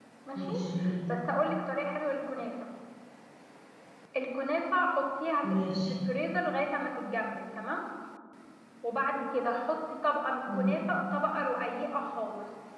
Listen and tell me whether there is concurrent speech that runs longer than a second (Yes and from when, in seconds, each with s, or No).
No